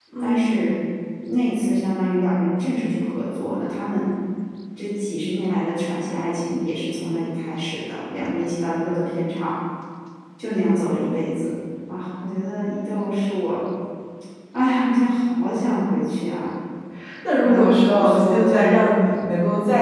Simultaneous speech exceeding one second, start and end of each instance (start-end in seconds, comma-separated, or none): 17.4-18.8